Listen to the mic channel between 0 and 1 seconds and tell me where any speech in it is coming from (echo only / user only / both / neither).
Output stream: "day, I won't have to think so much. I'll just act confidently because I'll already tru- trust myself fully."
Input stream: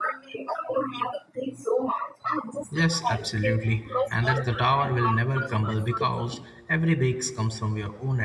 echo only